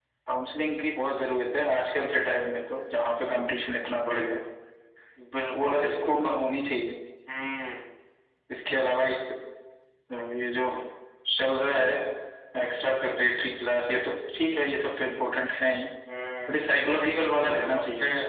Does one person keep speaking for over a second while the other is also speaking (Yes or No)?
Yes